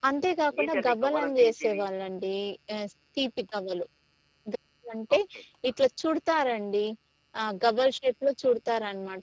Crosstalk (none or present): present